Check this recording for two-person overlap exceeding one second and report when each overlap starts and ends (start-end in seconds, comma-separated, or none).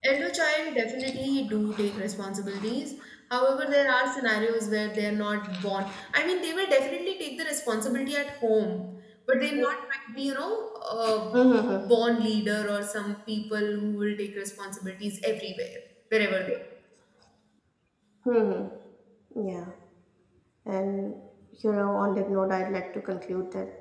none